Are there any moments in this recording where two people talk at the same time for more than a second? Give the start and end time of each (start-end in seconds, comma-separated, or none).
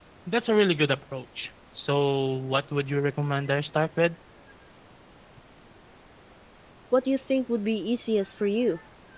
none